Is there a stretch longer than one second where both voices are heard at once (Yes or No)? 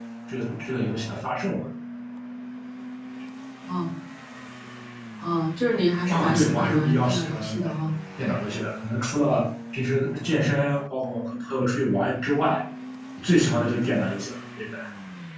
Yes